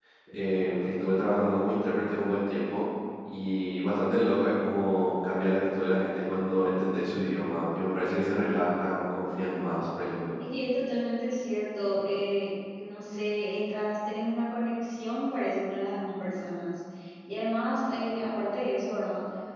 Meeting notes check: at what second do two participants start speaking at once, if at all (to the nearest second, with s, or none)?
none